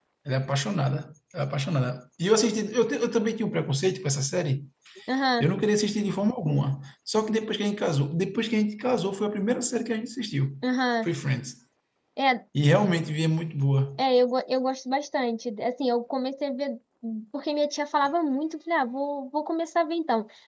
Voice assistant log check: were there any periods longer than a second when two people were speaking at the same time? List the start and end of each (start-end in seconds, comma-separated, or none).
none